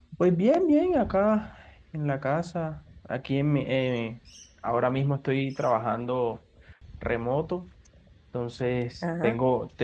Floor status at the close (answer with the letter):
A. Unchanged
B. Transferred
A